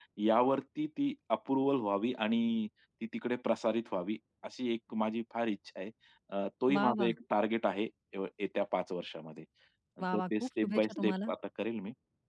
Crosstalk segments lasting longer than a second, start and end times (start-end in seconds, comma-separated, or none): 10.1-11.3